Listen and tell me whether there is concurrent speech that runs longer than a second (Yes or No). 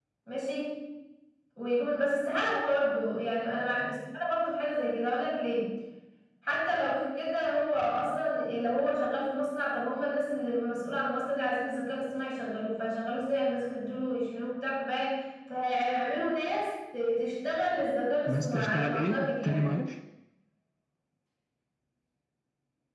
Yes